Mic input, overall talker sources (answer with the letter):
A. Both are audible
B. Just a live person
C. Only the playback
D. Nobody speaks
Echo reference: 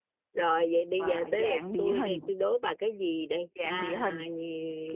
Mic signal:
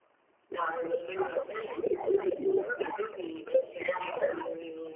C